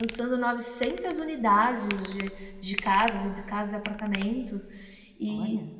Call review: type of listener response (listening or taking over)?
listening